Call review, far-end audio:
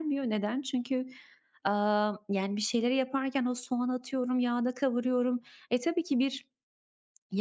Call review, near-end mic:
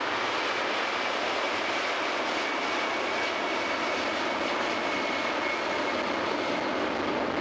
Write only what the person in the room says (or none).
none